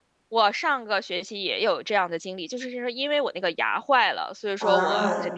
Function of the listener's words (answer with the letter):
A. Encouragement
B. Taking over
A